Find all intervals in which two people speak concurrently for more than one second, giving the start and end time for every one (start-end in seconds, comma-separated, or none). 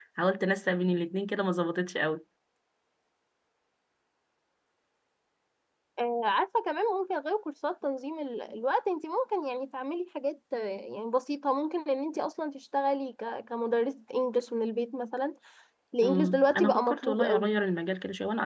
16.0-17.6